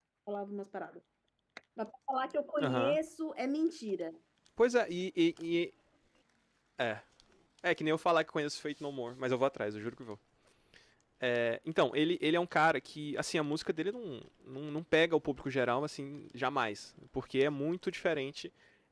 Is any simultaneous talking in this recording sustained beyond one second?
No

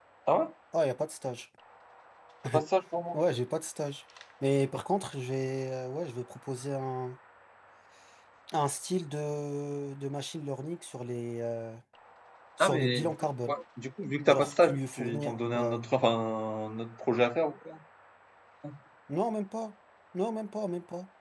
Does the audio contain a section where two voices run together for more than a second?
Yes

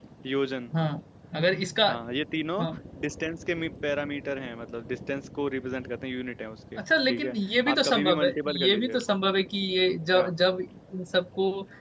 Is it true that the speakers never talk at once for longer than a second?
No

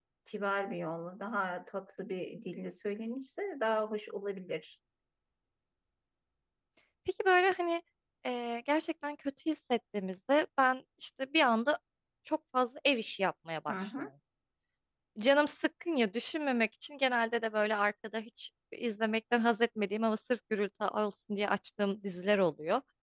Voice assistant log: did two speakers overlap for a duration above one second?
No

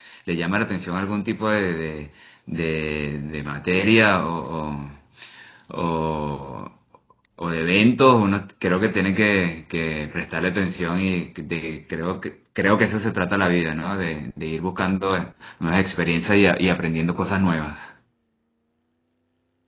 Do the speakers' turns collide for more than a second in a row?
No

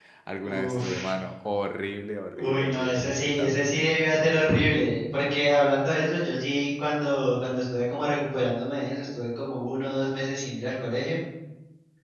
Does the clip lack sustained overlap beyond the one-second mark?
No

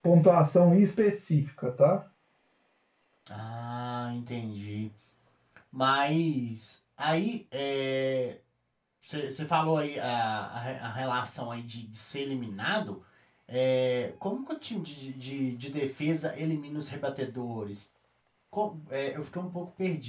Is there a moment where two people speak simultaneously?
No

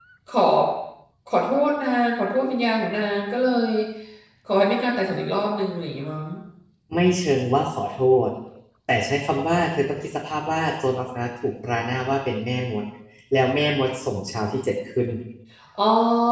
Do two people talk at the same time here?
No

